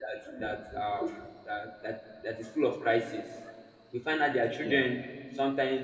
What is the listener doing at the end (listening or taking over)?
listening